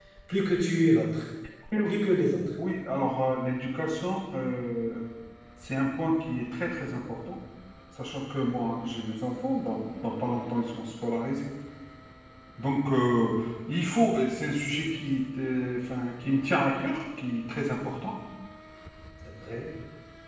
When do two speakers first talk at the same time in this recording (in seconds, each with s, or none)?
none